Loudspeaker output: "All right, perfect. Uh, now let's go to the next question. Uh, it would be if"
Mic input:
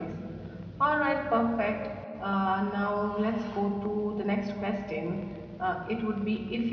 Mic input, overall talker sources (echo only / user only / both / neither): echo only